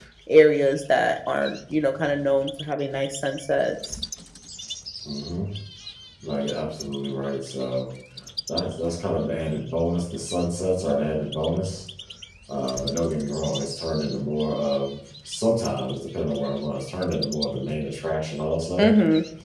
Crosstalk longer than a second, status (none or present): none